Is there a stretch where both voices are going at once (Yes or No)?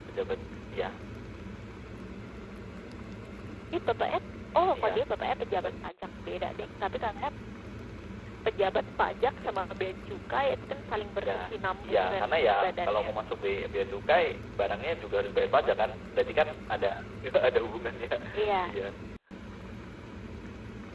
Yes